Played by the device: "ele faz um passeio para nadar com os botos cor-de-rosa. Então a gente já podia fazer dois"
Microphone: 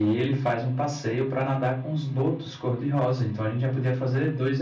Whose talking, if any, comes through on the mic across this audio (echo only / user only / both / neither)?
echo only